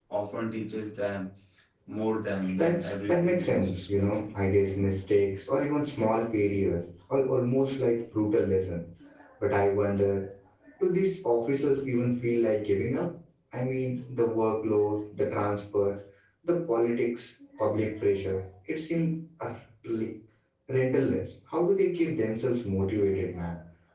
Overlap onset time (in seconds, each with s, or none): 2.5 s